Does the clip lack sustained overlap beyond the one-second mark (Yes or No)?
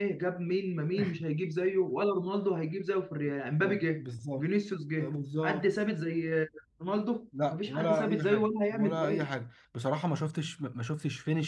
No